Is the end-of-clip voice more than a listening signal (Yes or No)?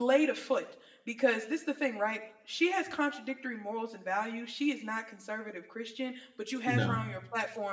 No